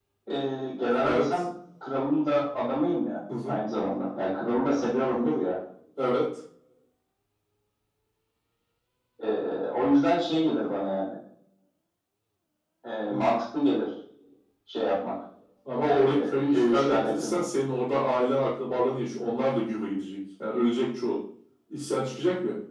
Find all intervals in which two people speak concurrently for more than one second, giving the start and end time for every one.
15.8-17.4

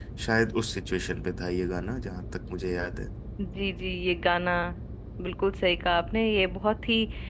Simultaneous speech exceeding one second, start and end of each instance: none

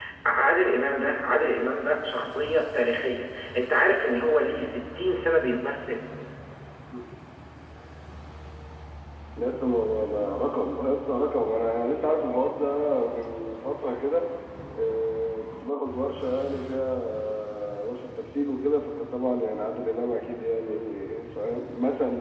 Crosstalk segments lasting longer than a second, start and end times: none

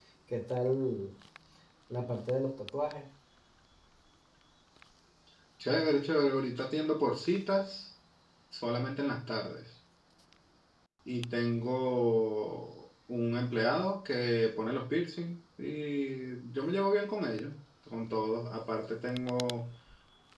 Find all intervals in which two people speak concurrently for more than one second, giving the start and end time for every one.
none

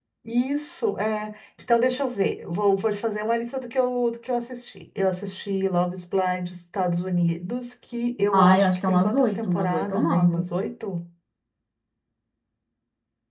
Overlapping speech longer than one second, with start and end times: 8.3-10.5

